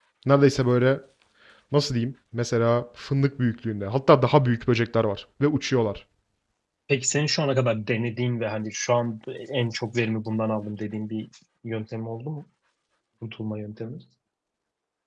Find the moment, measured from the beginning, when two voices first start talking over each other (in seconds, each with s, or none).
none